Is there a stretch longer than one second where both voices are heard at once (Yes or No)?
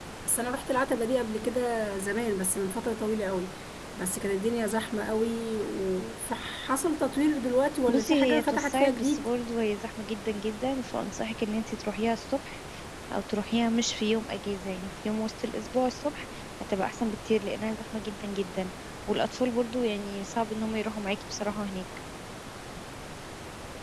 Yes